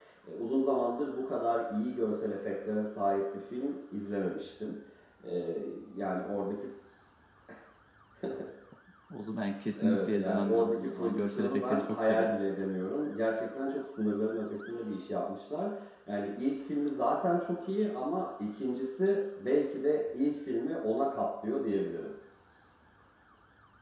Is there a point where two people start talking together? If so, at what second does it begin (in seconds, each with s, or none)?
9.8 s